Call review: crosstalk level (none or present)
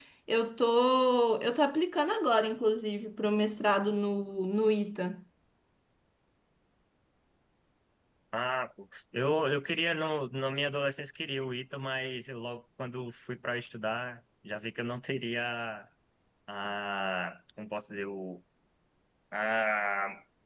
none